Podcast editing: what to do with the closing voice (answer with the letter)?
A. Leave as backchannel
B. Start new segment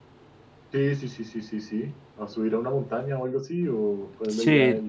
B